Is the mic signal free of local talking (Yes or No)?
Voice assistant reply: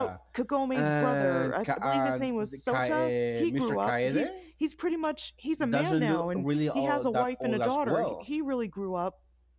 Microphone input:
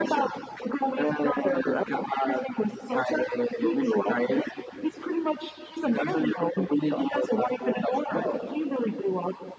Yes